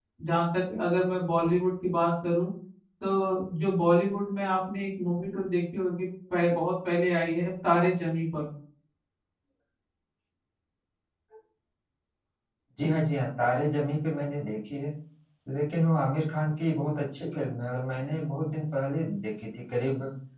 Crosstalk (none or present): none